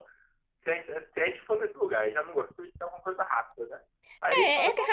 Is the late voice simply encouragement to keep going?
No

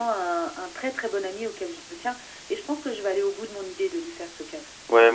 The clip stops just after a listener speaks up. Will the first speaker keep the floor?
No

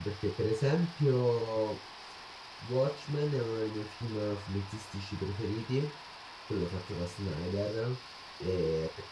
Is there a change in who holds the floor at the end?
No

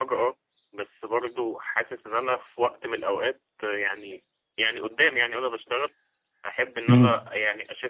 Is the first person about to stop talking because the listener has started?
No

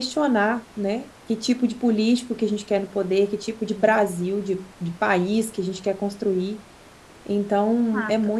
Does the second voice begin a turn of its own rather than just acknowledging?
No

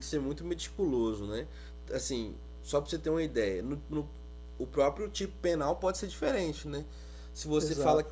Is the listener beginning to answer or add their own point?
No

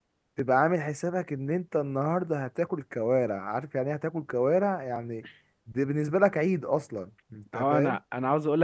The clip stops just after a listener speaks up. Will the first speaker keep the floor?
No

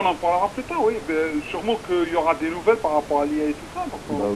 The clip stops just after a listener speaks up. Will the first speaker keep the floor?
No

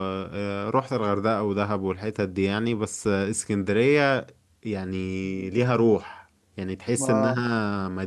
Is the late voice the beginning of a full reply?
No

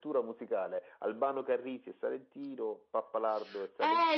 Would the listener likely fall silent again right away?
No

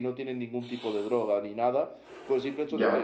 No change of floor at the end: Yes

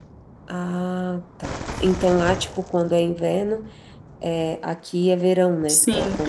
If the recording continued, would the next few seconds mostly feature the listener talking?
Yes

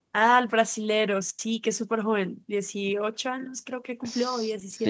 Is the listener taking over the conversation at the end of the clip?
Yes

